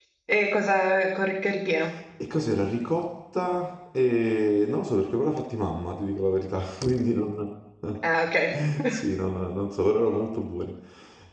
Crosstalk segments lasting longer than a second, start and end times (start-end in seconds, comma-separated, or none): none